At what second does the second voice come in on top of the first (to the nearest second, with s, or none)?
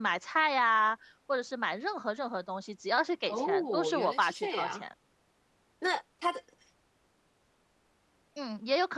3 s